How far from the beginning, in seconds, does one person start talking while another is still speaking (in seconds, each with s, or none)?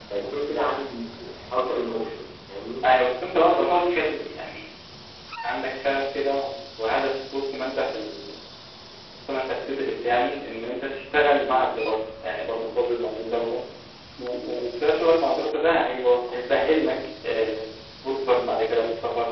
none